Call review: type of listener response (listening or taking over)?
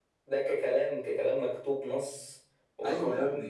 taking over